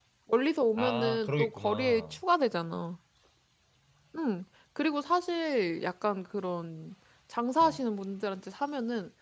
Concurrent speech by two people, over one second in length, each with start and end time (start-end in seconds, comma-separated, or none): 0.8-2.2